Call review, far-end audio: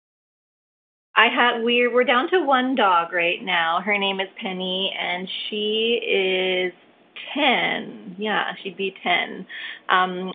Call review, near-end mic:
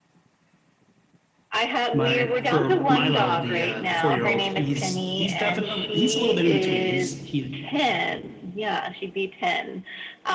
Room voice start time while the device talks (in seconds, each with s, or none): 1.9 s